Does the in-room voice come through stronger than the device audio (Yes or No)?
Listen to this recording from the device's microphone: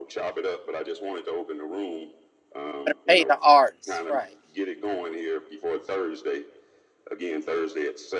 Yes